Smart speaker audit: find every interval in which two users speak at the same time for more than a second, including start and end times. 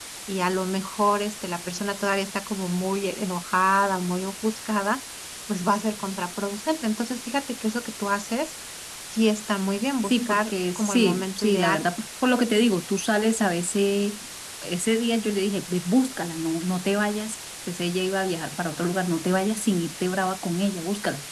10.0-11.8

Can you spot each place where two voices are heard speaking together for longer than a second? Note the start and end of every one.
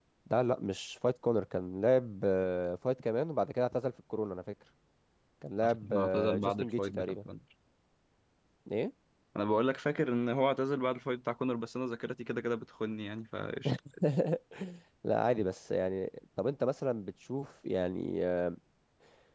5.6-7.2

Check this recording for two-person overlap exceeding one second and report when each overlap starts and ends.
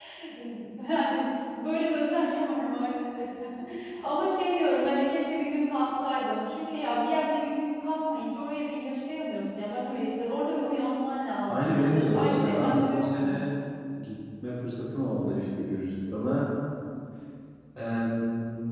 11.5-13.4

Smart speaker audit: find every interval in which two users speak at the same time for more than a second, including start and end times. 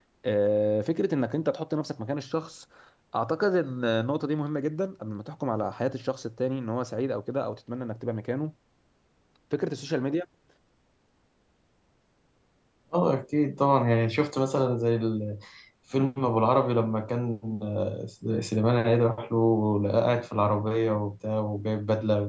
none

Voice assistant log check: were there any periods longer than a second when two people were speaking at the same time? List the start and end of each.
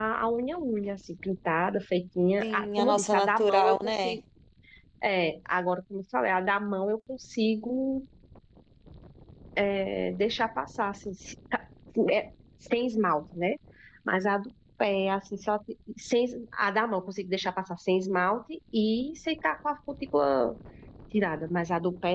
2.4-4.2

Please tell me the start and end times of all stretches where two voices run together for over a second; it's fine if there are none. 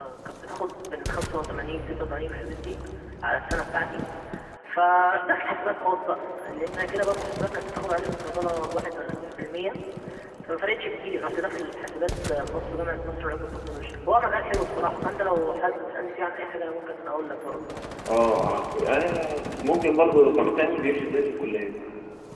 none

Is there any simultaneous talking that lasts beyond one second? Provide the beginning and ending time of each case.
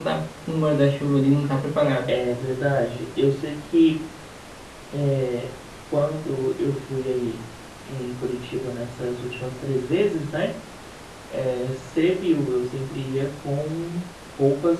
none

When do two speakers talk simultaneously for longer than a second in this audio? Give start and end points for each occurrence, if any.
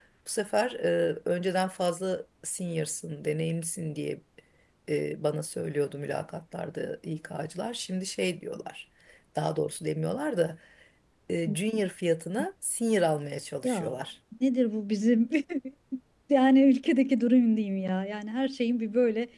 none

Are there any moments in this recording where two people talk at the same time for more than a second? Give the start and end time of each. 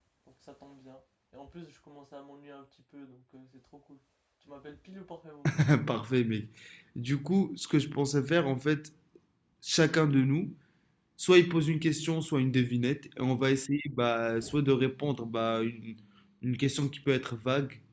none

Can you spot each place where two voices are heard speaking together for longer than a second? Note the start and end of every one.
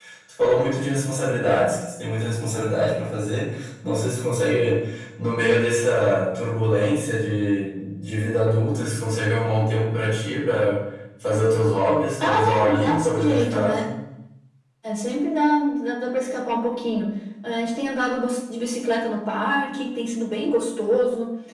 12.2-13.8

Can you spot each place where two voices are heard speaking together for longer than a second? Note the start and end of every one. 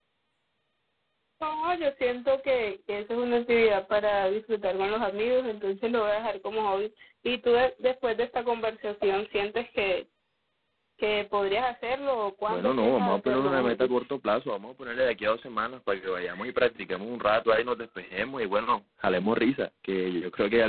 12.5-13.9

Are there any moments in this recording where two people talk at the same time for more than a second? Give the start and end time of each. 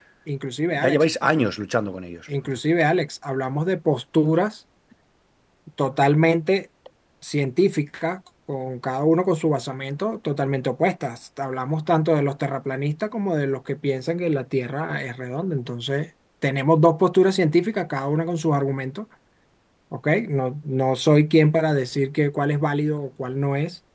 none

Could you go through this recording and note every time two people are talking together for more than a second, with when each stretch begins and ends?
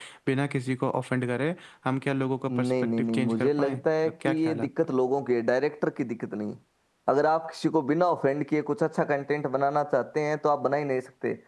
2.5-4.7

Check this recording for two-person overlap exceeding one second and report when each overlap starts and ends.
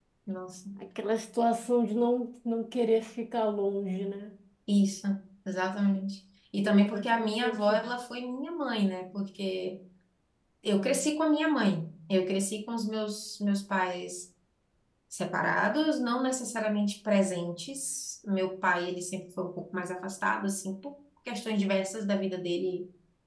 6.6-7.9

